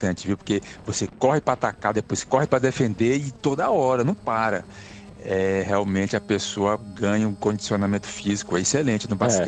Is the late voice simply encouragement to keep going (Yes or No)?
No